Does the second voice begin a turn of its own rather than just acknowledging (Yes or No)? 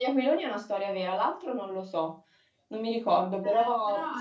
Yes